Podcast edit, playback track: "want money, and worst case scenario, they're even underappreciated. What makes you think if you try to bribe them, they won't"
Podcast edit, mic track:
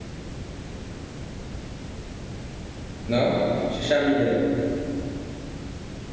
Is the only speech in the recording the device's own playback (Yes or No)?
No